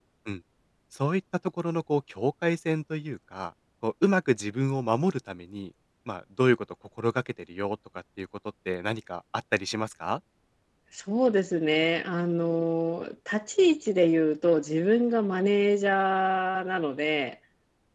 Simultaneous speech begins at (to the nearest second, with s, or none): none